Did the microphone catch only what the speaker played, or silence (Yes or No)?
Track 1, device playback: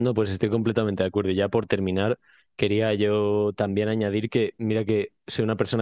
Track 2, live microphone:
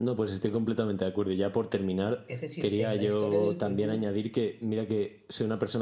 No